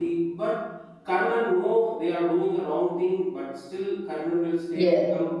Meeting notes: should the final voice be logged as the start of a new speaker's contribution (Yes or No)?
No